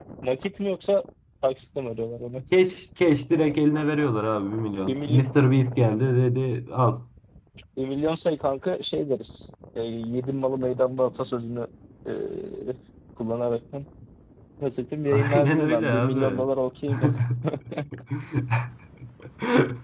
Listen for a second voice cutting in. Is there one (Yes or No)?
Yes